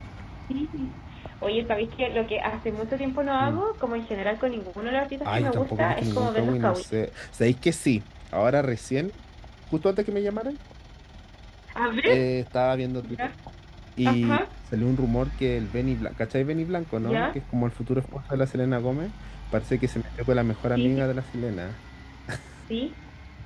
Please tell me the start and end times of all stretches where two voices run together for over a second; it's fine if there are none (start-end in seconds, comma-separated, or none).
5.2-6.8